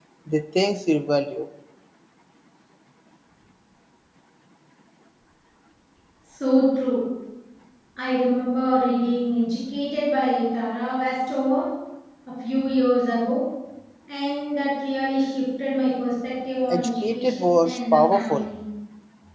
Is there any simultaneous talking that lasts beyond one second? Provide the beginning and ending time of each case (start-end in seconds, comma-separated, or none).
16.7-18.4